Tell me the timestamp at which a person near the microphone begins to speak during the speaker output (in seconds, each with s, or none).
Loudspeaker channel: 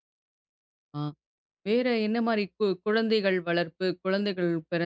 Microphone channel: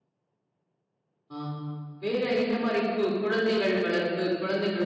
none